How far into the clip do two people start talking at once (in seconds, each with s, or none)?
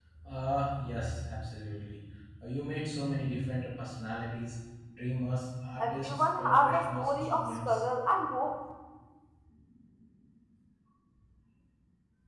5.8 s